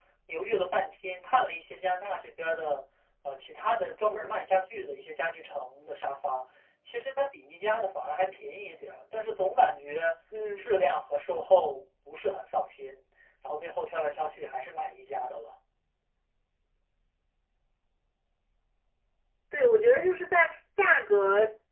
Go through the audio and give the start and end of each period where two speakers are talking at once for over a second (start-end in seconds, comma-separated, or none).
none